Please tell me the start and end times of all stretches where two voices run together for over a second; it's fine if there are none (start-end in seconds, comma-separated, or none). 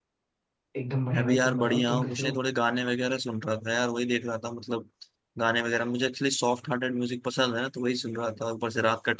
1.1-2.4